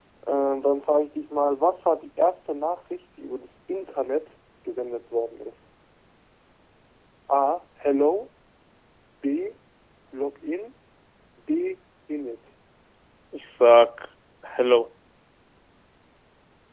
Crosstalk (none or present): none